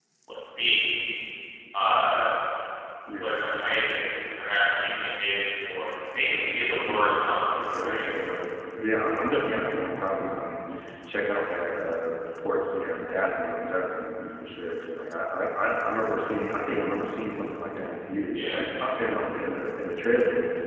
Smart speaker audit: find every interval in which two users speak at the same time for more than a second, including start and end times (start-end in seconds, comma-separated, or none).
6.2-8.0